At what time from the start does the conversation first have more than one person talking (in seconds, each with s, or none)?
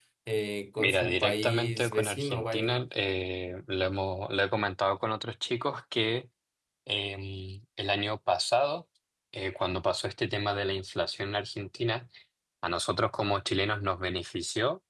0.8 s